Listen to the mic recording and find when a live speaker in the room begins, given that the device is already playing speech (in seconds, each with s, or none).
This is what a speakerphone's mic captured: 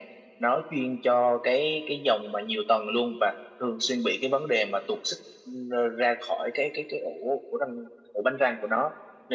none